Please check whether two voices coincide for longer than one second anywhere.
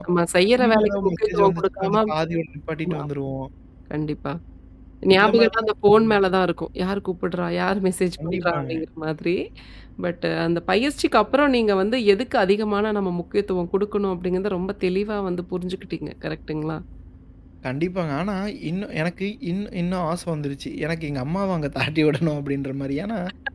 Yes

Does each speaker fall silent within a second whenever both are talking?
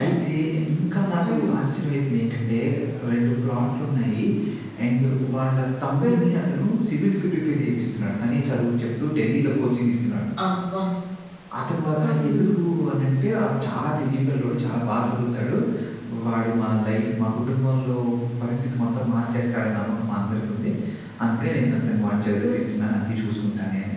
Yes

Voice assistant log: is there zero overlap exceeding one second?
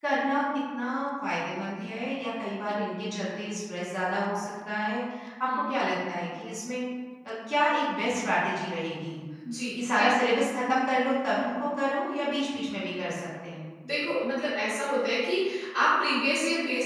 Yes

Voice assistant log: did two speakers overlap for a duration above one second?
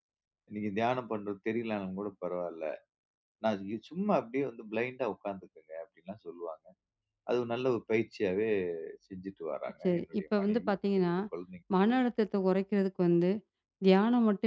Yes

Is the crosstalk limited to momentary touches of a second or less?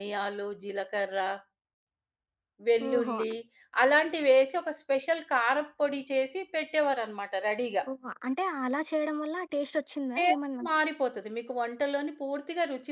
Yes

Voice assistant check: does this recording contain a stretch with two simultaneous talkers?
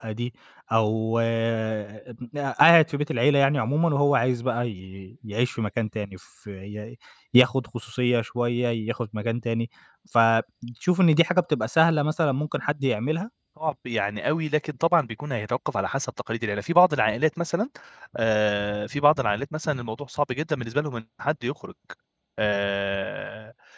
No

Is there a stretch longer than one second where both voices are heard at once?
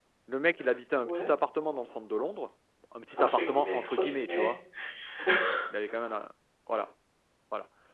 Yes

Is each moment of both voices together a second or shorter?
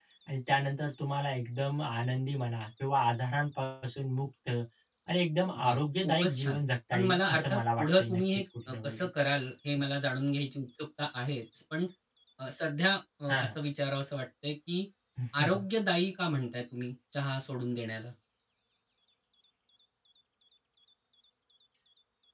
No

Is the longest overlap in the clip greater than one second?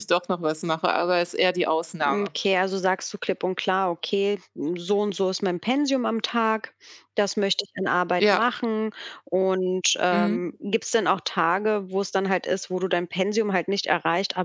No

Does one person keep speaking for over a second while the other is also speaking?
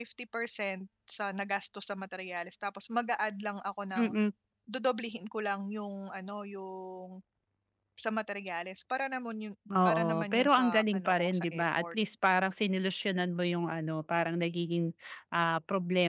Yes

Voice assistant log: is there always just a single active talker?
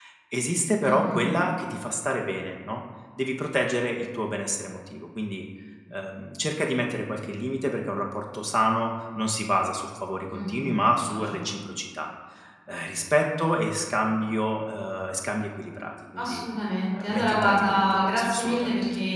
No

